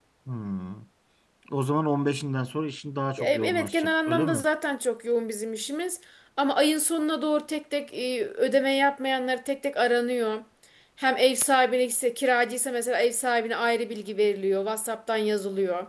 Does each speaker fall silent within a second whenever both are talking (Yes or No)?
No